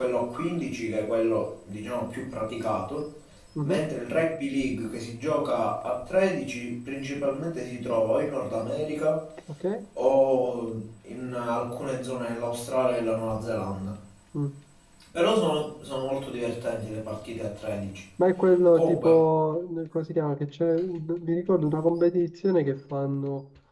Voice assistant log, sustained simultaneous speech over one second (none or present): none